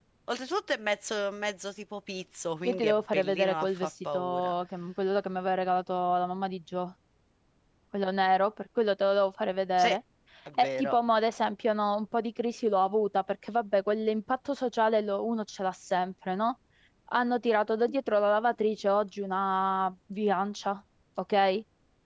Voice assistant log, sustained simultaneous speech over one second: present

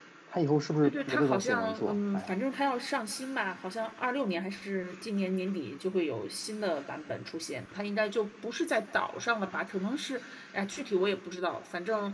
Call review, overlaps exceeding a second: present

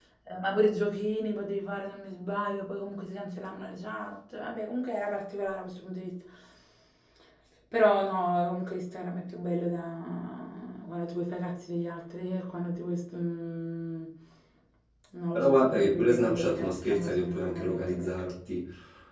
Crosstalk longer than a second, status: present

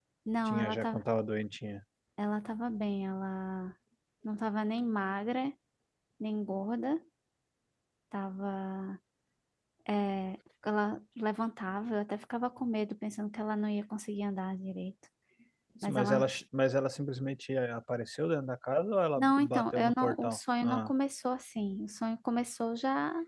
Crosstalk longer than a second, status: present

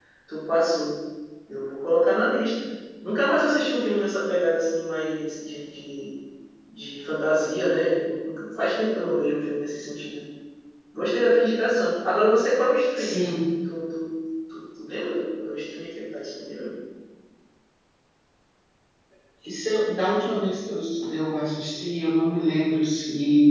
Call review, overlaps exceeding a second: none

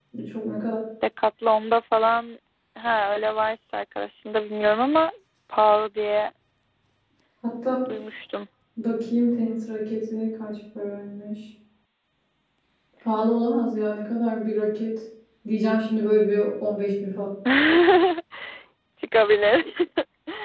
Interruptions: none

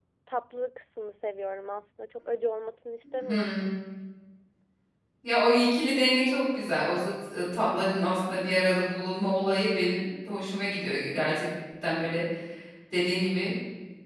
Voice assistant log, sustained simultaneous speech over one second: none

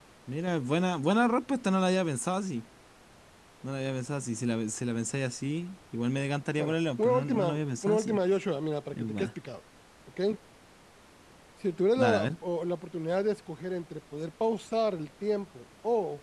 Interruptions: present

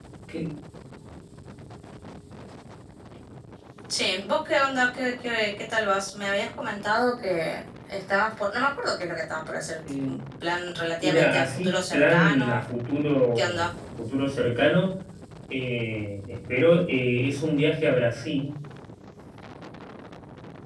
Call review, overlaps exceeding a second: present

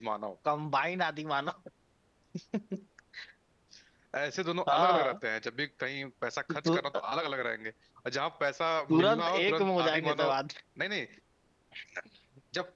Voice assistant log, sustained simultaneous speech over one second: present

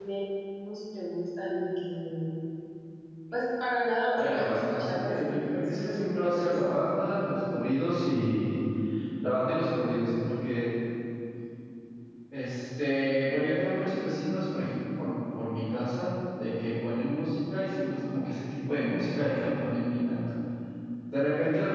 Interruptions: present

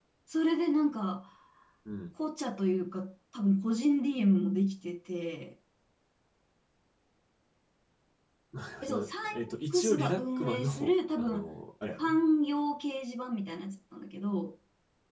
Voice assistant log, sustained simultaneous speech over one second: present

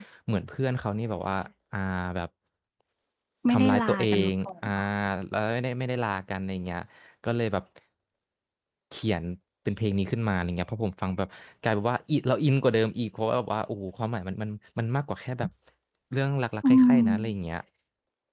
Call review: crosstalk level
present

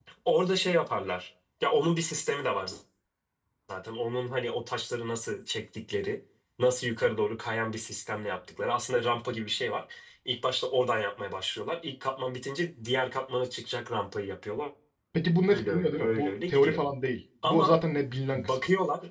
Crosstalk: present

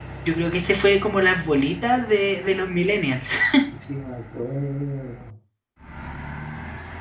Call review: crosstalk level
none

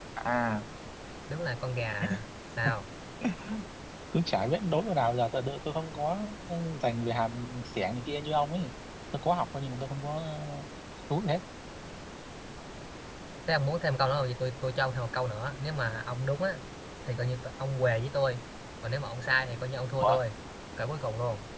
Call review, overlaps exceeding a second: none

